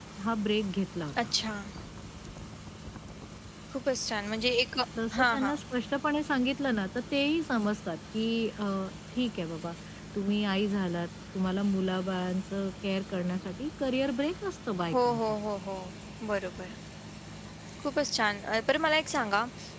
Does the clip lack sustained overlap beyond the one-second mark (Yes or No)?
Yes